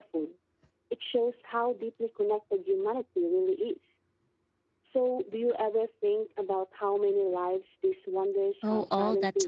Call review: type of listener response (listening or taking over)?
taking over